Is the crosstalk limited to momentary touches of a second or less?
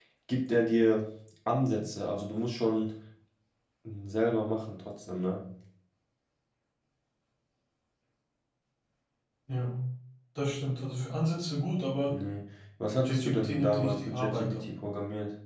No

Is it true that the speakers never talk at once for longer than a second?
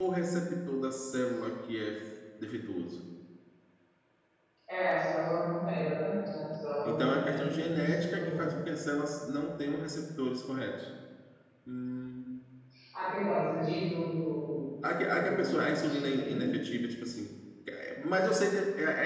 No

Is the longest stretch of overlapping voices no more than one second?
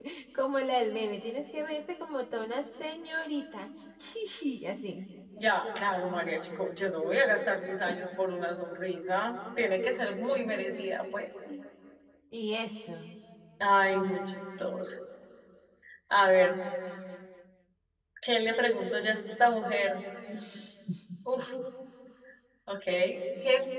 Yes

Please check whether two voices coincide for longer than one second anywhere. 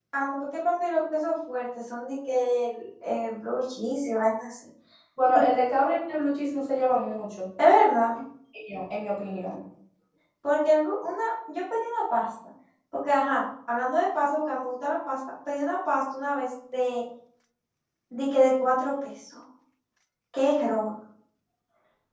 No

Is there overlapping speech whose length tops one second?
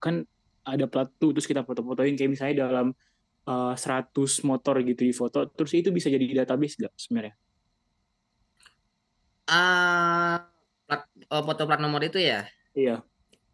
No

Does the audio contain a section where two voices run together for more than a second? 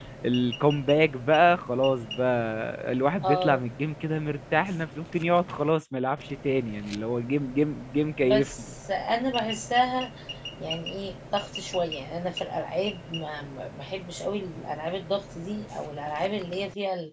No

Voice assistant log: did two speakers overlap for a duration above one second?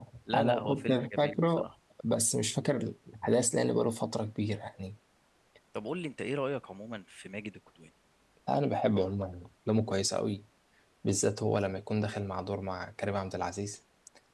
Yes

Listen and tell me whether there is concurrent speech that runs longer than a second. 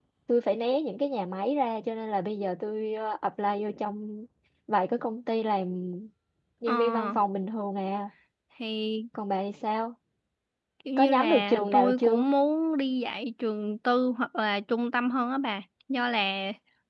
Yes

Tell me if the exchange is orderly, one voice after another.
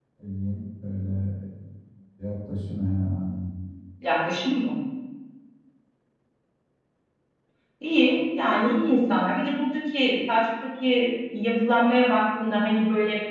Yes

